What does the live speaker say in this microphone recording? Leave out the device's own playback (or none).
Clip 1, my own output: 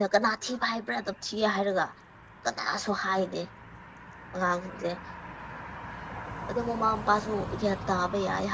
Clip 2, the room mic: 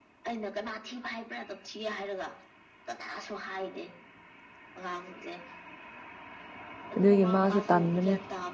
ꯑꯗꯨꯒꯤ ꯃꯥꯁꯨ ꯇꯥꯟꯕꯅꯦ